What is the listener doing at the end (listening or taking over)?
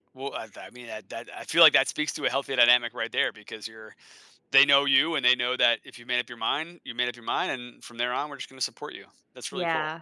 taking over